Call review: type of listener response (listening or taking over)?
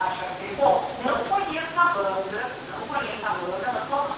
listening